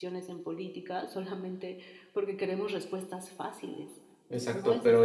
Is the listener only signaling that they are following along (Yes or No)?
No